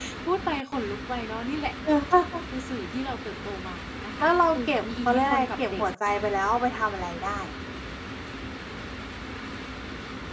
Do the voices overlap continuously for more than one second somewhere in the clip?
Yes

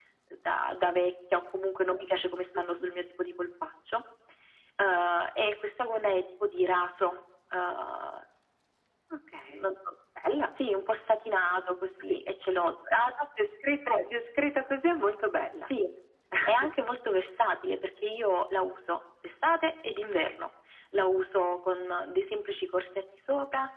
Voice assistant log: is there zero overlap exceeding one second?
Yes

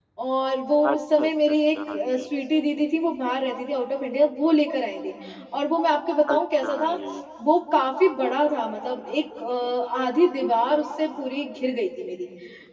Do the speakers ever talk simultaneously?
Yes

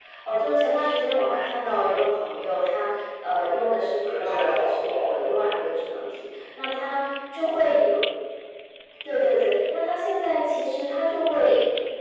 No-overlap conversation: No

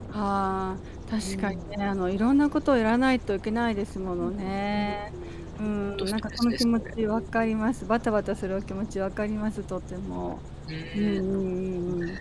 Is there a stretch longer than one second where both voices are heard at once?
Yes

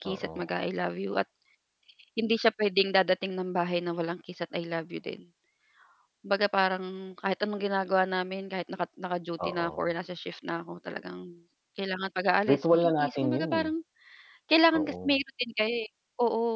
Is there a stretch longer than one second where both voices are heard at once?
Yes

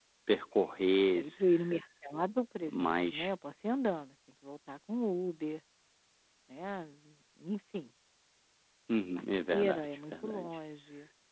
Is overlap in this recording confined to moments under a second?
No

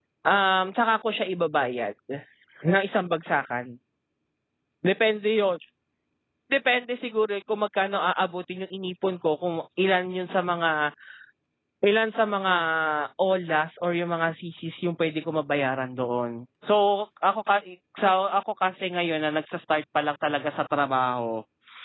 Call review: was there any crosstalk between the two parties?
No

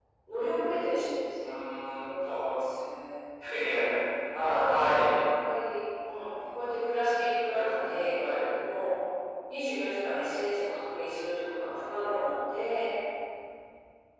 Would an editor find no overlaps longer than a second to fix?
Yes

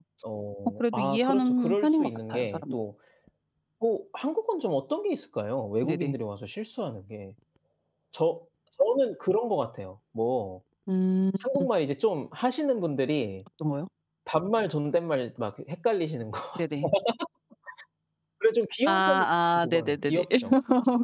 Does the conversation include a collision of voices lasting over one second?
Yes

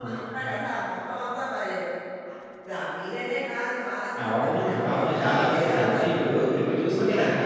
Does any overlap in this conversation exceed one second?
Yes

